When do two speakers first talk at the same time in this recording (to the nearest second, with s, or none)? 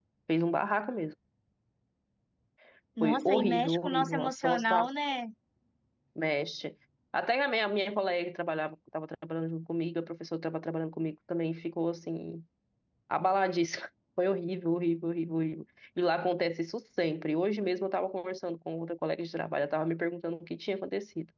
3 s